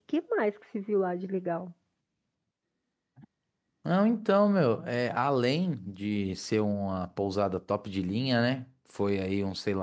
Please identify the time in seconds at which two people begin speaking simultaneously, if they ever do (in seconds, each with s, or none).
none